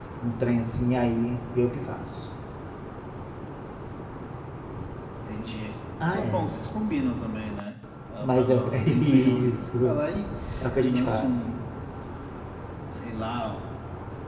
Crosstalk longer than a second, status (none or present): present